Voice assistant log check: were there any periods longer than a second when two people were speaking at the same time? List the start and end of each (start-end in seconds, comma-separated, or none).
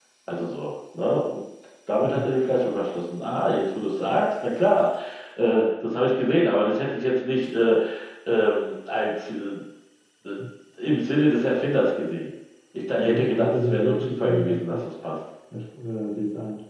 13.0-14.9